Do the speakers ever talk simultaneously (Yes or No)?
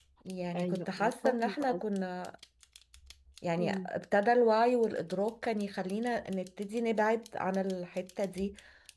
Yes